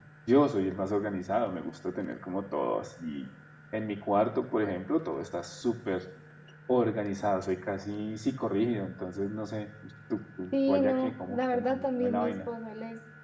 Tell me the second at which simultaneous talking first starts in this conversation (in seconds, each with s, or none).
10.5 s